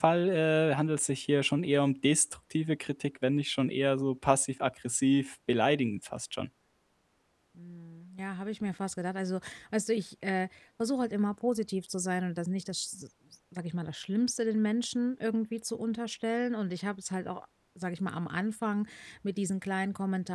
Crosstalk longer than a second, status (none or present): none